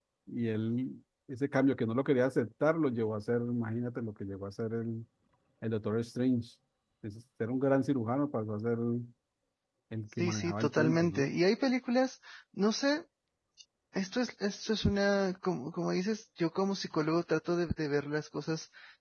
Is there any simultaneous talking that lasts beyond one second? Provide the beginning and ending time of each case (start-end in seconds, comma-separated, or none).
10.1-11.3